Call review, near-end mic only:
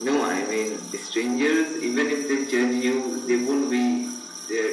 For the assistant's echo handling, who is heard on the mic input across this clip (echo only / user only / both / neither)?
echo only